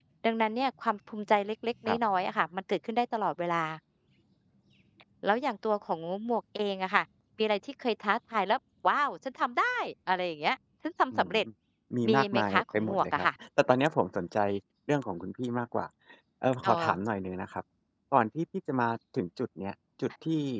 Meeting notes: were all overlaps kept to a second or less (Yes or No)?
No